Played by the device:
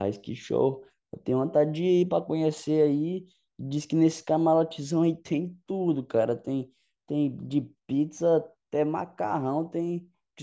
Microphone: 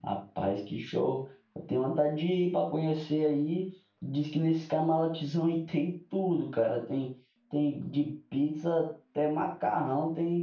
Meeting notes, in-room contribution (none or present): none